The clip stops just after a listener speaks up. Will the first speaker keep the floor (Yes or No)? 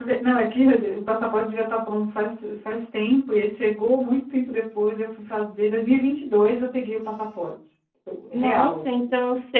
No